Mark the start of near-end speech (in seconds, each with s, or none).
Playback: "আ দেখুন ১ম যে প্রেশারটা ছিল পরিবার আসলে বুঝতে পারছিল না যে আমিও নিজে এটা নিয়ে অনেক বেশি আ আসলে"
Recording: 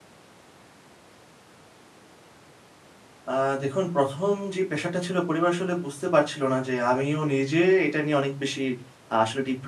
none